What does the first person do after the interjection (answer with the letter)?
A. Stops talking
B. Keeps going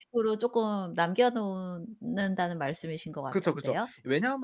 A